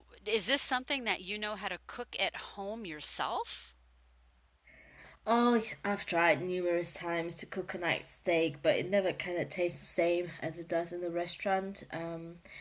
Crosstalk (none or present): none